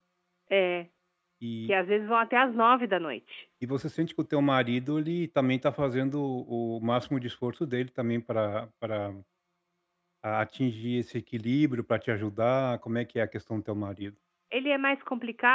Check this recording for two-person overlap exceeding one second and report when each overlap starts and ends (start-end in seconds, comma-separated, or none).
none